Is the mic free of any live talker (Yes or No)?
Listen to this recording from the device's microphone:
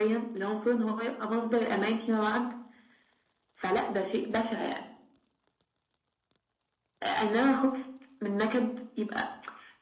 Yes